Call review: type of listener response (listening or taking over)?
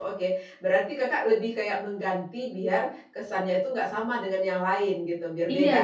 taking over